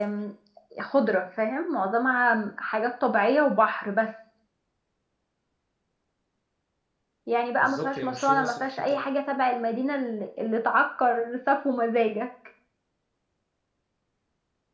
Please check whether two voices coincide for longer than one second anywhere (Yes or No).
Yes